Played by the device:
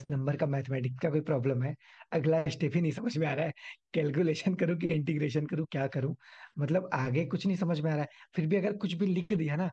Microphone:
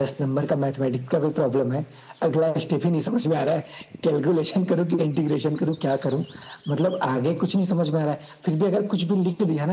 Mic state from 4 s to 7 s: echo only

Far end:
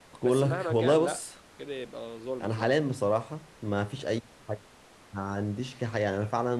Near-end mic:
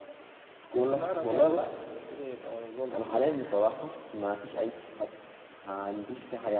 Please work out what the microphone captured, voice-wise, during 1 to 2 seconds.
echo only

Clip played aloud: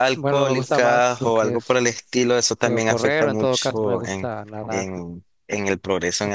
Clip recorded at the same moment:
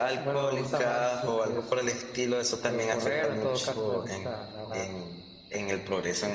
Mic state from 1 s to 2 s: echo only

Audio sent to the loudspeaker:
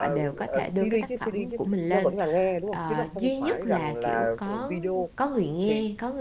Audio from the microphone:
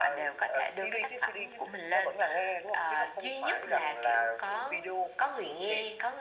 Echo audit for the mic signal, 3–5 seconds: echo only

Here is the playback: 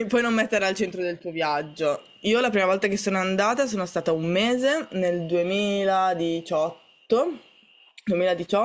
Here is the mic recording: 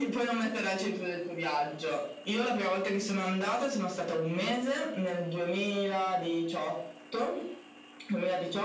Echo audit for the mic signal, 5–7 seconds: echo only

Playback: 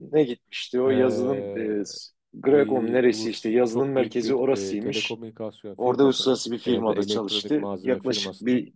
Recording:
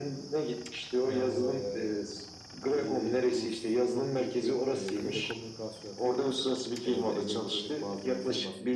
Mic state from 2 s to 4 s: echo only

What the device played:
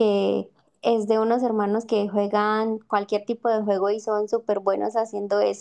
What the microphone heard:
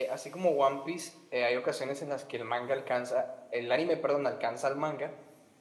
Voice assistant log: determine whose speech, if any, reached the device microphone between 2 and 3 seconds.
user only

